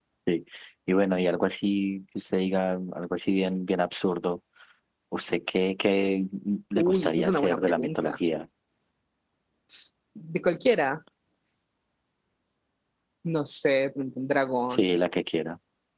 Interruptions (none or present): present